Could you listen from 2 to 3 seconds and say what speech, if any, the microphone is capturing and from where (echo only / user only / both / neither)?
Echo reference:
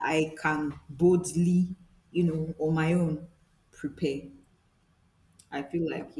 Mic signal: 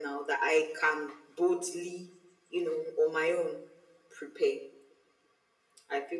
echo only